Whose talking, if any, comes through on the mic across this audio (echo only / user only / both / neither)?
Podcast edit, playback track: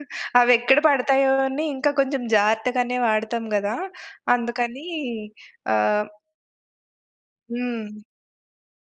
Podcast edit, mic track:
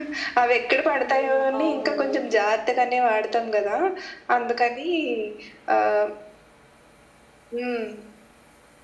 both